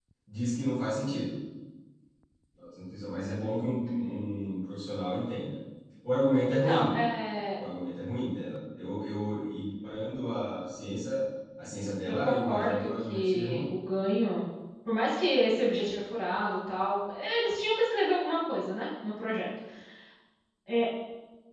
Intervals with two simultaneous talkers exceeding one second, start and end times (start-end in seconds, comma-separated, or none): 12.1-13.7